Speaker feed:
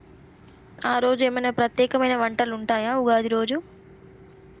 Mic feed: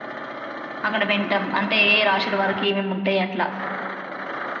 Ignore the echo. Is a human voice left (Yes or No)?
Yes